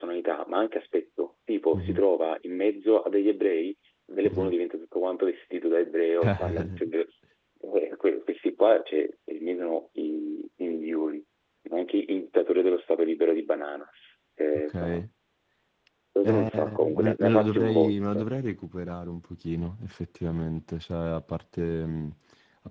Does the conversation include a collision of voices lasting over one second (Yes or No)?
Yes